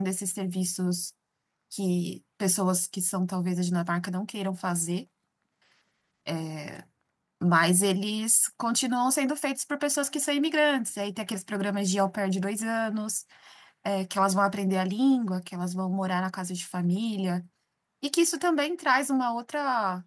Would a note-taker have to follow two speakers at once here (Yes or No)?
No